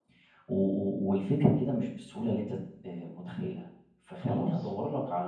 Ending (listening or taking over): listening